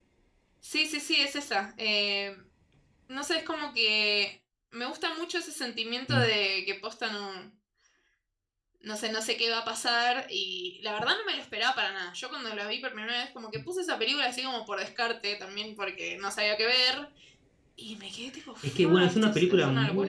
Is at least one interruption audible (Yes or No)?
Yes